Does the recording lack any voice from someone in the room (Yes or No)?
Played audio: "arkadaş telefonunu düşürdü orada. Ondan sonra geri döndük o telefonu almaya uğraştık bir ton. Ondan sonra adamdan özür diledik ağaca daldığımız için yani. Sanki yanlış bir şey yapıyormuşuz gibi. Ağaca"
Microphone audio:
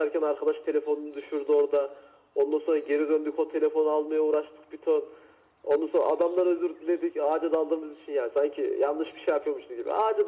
Yes